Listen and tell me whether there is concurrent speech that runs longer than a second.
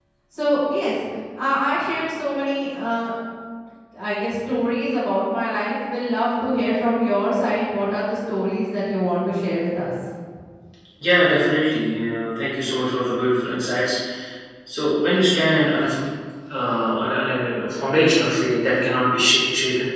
No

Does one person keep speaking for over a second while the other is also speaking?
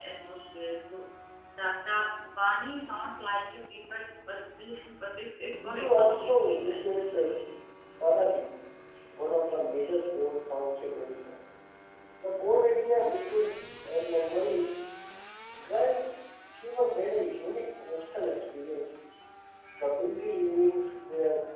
Yes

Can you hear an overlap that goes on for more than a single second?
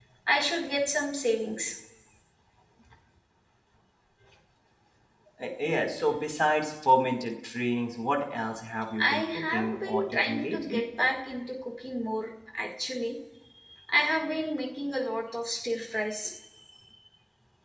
Yes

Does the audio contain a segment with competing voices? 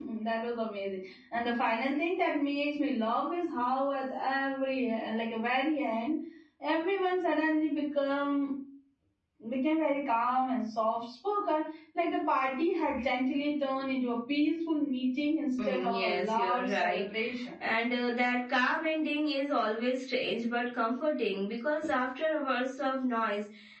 Yes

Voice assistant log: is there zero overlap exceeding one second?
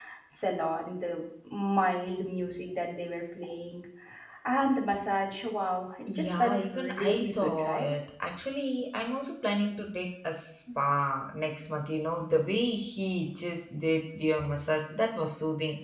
No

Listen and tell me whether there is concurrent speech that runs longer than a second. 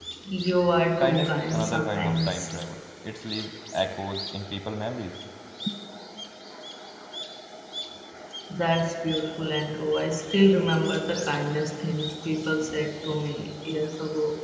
Yes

